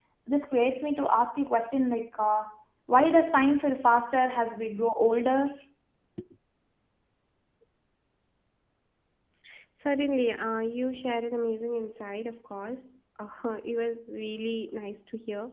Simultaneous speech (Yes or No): No